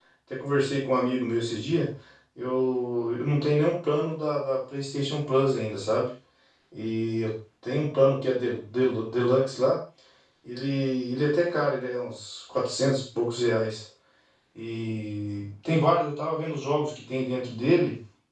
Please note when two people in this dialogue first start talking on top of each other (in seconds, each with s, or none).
none